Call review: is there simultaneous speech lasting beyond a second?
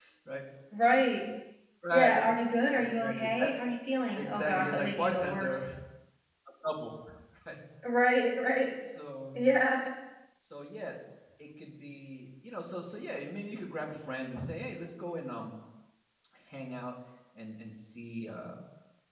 Yes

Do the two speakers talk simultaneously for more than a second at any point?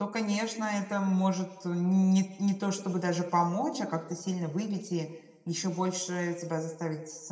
No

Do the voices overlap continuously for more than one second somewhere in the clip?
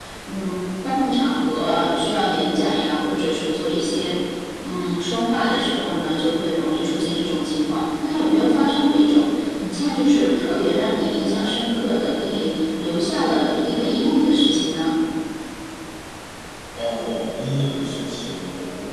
No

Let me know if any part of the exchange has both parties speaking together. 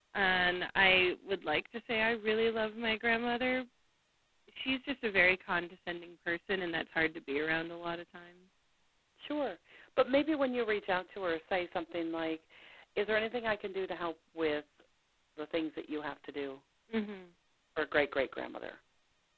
No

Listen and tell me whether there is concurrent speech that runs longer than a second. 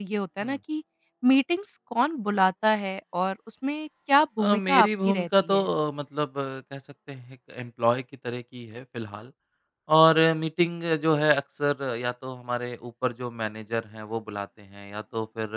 Yes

